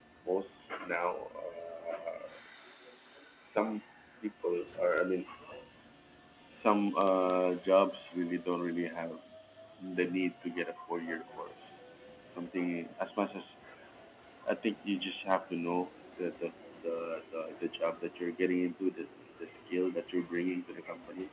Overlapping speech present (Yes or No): No